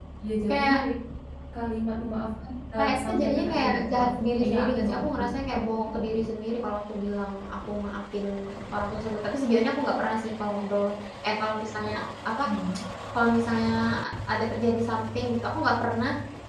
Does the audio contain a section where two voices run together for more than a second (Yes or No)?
Yes